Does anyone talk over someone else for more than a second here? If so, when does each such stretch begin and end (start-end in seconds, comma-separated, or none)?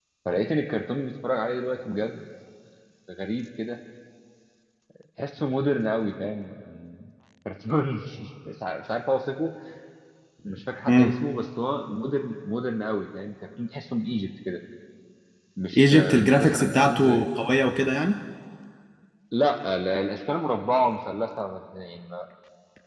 15.8-17.2